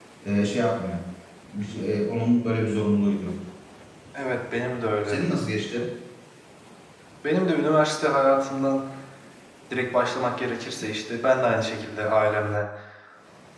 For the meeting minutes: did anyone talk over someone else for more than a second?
No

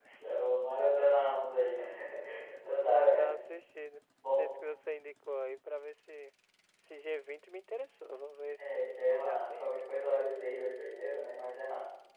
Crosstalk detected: Yes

